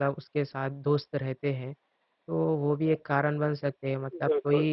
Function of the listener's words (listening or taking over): listening